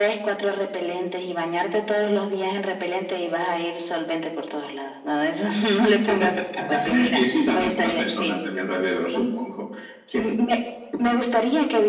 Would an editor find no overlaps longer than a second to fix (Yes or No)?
No